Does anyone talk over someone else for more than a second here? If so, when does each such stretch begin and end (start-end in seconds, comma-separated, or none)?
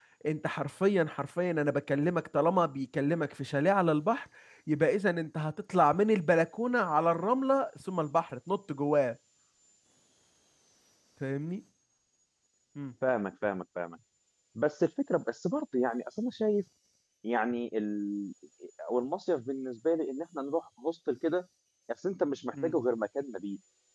none